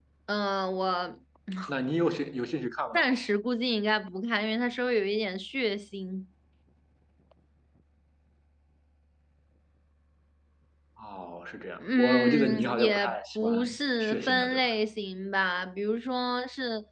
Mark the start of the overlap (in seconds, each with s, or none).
11.8 s